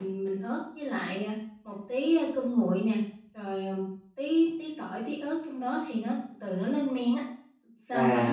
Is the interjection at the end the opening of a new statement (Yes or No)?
Yes